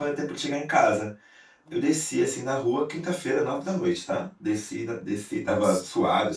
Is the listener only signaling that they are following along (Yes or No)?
Yes